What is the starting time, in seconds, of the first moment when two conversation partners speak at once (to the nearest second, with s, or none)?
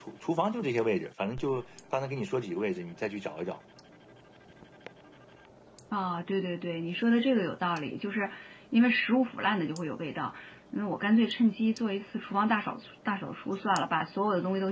none